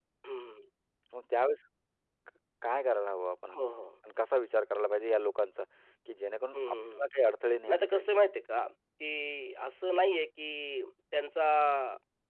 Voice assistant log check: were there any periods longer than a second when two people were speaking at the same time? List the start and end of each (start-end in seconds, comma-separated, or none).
none